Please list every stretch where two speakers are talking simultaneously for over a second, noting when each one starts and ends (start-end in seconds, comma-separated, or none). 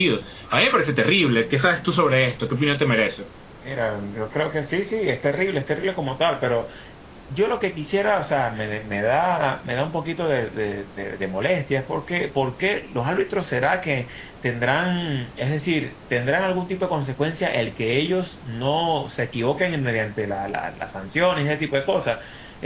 none